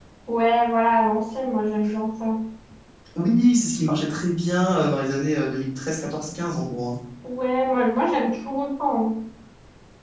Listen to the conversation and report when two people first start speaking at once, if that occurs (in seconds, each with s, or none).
none